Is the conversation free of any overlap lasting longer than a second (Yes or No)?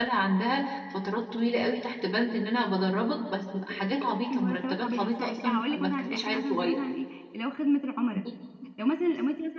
No